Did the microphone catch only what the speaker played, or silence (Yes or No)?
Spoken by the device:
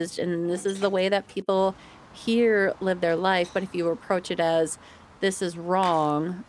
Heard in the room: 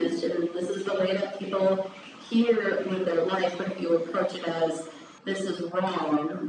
Yes